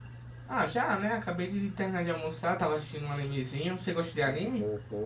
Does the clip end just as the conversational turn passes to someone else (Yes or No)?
Yes